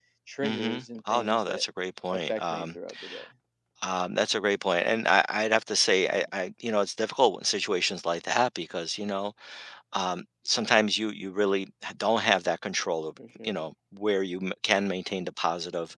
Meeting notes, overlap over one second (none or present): present